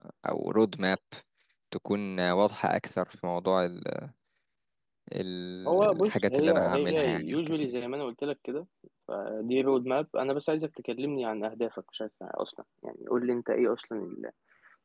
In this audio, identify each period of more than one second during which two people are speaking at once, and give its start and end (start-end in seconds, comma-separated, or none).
5.6-7.7